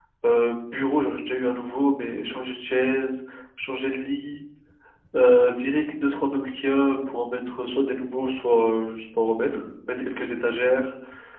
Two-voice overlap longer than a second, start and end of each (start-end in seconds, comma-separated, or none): none